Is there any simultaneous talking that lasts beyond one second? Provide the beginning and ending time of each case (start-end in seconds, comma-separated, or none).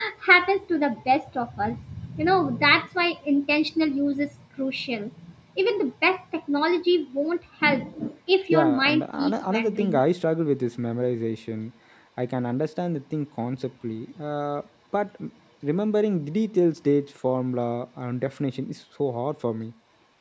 8.5-10.0